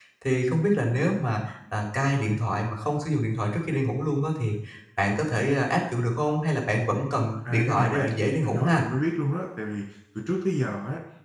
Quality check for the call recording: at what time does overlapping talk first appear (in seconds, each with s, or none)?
7.4 s